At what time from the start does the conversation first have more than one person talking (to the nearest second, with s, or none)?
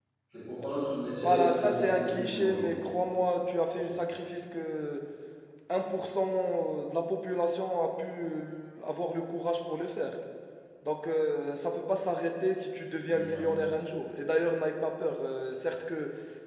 1 s